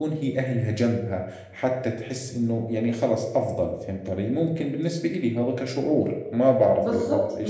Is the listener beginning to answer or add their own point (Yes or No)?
Yes